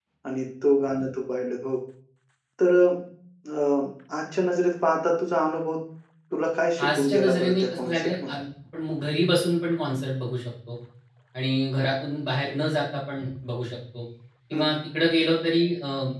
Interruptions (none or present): present